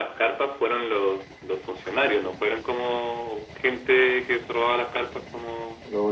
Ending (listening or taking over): taking over